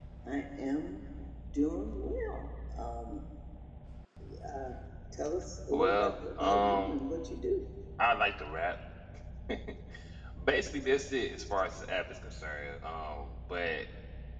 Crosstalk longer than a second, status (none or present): present